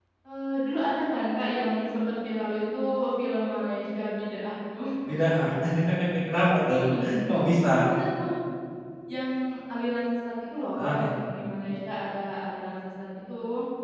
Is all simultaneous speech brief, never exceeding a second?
Yes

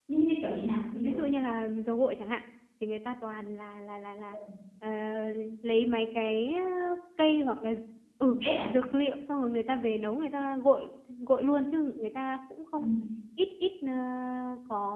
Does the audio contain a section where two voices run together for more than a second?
No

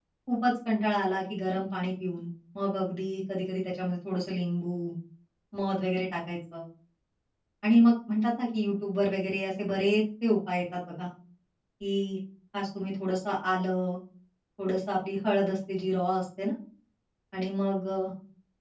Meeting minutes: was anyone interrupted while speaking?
No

